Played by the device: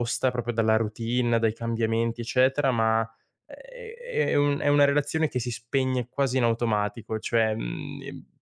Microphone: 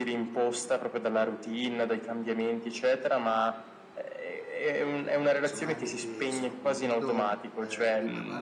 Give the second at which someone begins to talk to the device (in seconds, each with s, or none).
5.4 s